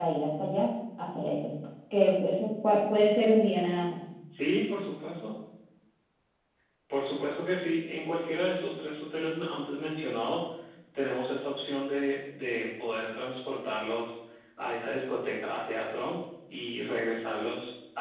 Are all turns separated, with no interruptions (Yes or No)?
Yes